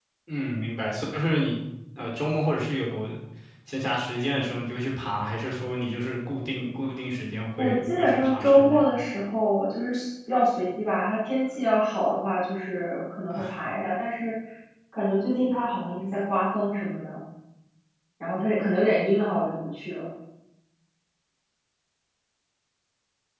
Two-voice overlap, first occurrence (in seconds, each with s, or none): 7.6 s